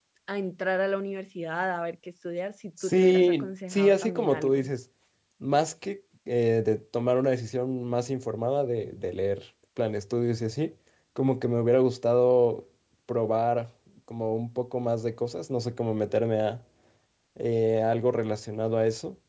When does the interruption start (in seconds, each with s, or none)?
2.8 s